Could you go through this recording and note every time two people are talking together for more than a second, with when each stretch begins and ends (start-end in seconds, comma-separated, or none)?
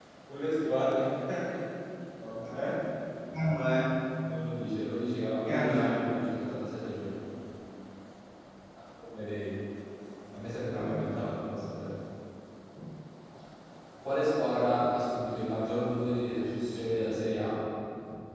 none